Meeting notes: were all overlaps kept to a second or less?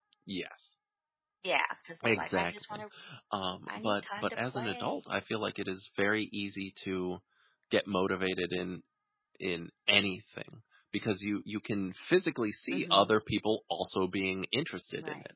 No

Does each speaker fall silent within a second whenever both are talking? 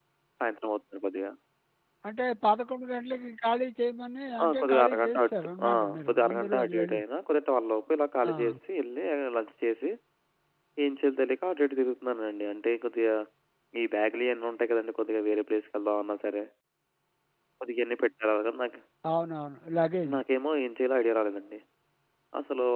No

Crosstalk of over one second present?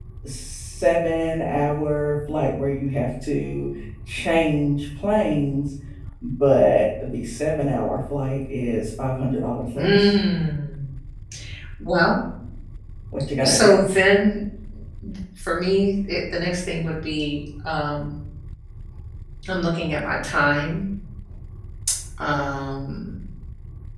No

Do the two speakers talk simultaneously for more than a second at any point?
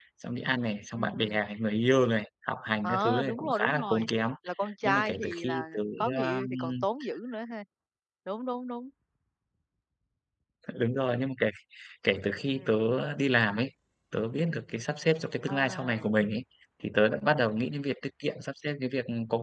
Yes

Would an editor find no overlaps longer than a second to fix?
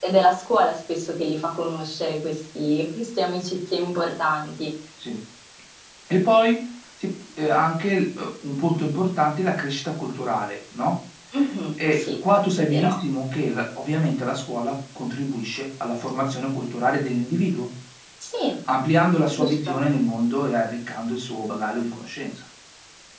Yes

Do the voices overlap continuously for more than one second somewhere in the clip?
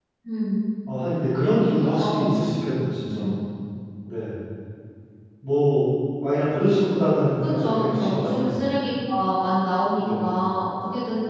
Yes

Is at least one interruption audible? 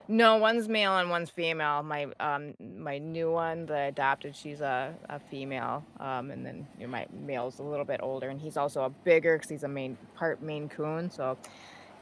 No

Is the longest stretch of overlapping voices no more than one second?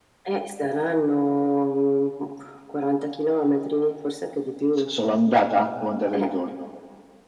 Yes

